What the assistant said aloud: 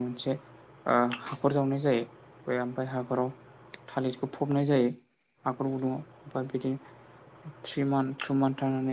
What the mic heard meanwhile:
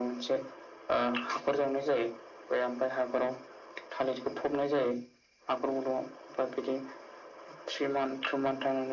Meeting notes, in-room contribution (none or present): none